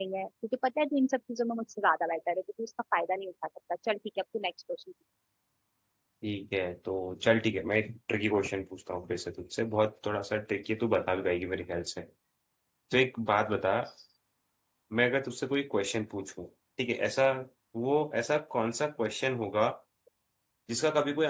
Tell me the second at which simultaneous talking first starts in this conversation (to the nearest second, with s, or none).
none